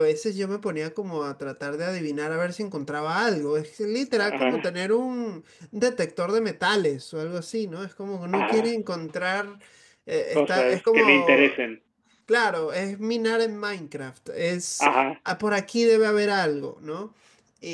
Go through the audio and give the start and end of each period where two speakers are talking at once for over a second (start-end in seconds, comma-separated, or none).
10.4-11.6